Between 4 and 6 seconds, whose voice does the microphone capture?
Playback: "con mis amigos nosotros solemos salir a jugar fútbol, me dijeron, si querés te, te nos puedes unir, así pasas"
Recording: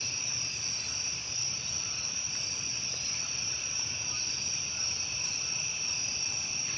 neither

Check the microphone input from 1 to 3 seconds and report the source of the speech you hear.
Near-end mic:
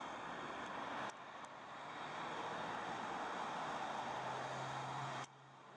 neither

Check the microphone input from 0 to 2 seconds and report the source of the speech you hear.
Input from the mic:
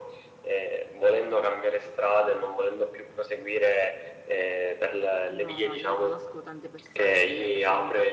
echo only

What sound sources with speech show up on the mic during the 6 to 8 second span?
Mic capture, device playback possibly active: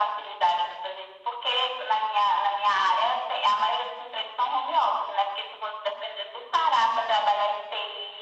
echo only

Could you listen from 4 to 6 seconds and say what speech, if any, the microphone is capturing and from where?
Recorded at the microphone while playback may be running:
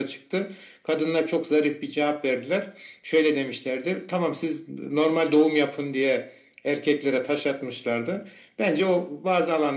echo only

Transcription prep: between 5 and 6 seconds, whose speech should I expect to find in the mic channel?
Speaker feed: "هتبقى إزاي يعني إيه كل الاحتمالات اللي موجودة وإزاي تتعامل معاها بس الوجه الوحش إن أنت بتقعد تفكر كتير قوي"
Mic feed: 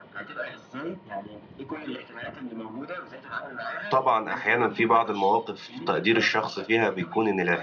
both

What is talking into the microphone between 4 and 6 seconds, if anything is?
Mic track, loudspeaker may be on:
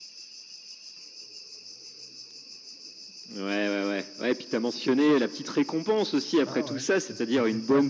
echo only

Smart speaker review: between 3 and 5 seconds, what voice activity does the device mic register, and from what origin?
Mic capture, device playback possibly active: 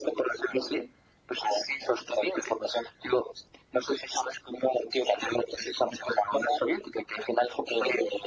echo only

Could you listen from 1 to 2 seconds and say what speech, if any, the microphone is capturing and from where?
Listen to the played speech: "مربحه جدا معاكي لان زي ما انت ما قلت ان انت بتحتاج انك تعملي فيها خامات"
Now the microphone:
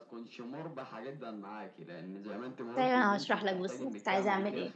echo only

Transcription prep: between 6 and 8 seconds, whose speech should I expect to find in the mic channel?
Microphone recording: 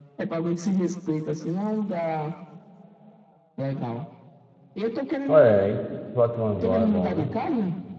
both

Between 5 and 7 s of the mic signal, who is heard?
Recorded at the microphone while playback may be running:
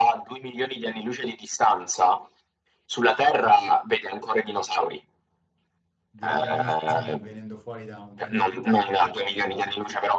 both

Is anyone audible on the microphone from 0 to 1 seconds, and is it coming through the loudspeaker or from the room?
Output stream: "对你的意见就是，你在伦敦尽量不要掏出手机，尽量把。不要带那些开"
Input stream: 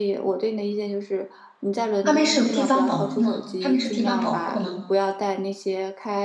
echo only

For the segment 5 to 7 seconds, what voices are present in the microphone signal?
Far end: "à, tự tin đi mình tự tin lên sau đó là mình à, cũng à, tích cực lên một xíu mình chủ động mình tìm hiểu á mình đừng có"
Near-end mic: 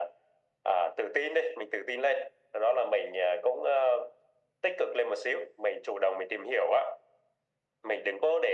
echo only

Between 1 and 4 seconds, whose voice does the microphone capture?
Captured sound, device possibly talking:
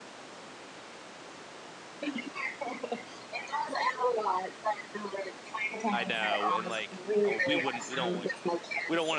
echo only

